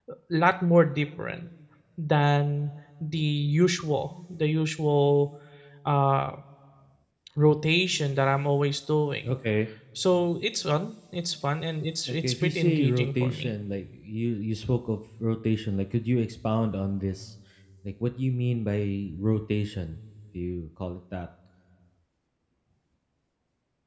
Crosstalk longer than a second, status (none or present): present